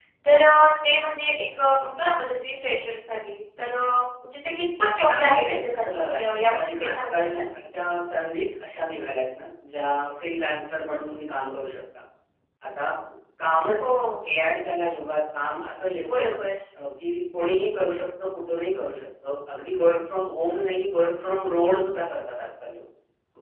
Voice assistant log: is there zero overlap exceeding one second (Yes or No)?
No